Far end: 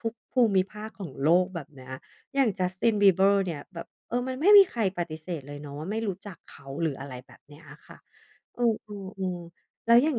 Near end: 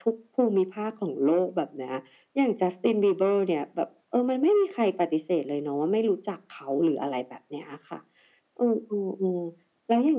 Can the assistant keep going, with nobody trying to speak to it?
Yes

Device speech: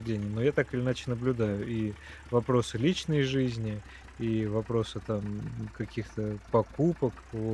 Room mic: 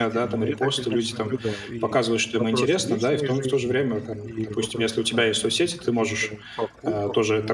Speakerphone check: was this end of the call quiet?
No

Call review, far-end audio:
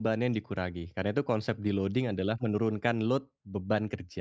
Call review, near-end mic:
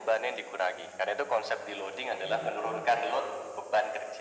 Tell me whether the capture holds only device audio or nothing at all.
No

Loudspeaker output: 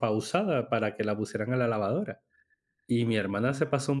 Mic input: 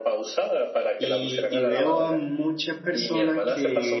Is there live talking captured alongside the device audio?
Yes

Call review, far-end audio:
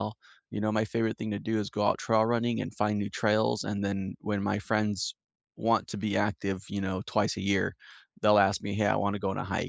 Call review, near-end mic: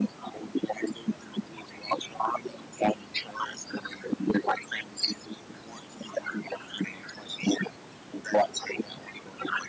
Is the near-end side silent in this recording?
Yes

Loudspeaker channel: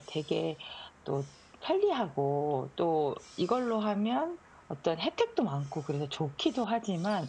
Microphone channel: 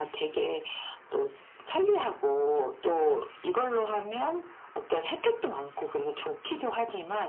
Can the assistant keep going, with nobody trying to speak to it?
Yes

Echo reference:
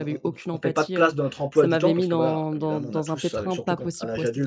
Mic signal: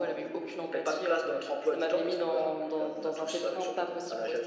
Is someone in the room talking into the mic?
No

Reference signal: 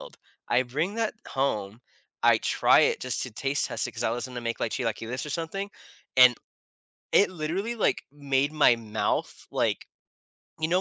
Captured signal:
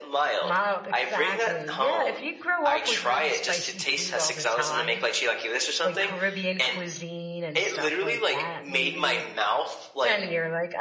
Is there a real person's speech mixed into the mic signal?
Yes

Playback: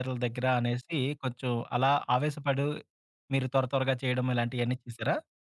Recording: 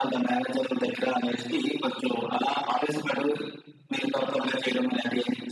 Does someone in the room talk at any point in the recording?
No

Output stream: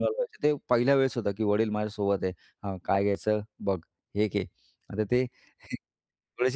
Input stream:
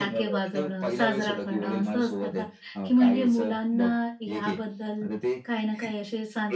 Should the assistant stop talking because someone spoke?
Yes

